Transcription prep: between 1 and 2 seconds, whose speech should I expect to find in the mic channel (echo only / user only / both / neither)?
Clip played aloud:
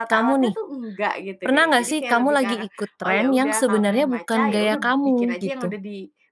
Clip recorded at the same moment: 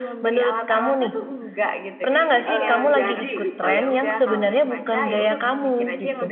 echo only